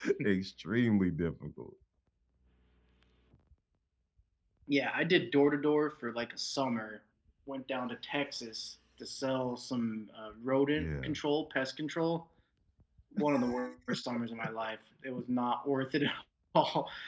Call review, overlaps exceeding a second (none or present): none